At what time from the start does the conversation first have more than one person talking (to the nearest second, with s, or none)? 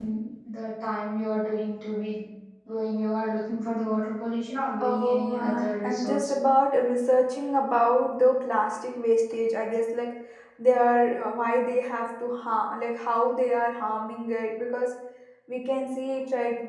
5 s